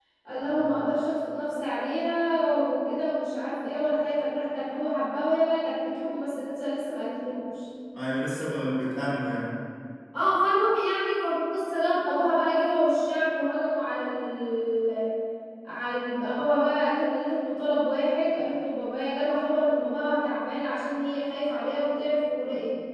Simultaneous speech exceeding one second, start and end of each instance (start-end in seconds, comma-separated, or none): none